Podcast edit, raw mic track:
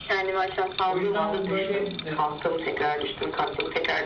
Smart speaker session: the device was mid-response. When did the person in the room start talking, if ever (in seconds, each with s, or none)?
0.9 s